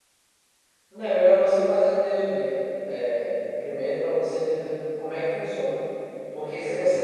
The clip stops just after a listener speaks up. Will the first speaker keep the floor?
Yes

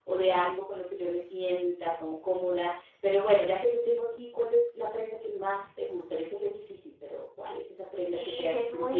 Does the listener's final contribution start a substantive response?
Yes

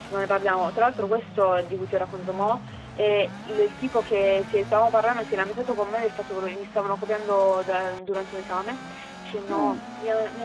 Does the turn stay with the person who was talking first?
Yes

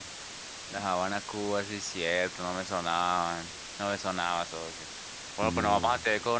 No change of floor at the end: Yes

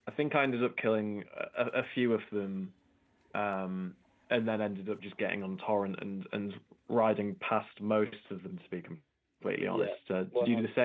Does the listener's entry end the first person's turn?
Yes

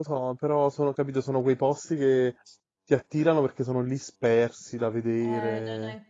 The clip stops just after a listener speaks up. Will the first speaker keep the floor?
No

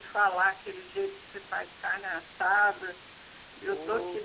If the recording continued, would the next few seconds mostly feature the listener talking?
No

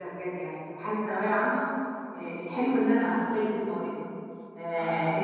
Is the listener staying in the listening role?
Yes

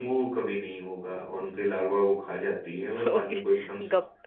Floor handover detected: Yes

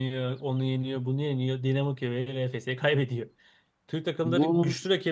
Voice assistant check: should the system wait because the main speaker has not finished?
Yes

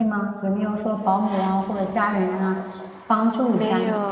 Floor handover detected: Yes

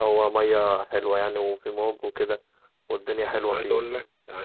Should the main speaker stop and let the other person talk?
Yes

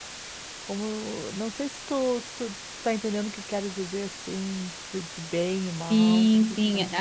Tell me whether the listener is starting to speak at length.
Yes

